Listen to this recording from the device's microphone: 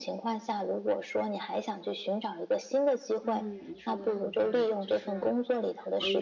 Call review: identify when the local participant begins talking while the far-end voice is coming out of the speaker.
3.2 s

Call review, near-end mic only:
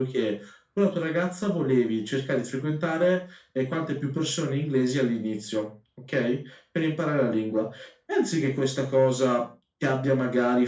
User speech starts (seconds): none

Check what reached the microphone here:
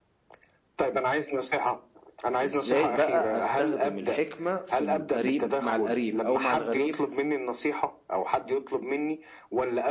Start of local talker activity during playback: 2.4 s

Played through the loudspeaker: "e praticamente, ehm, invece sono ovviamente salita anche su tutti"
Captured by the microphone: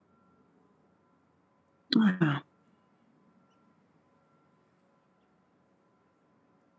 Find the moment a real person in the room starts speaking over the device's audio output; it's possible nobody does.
2.0 s

